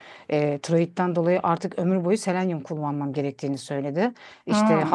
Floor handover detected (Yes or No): No